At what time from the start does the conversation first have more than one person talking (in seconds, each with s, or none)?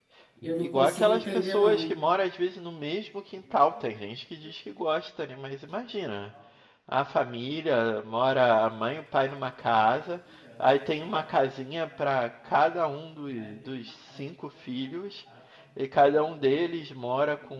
0.6 s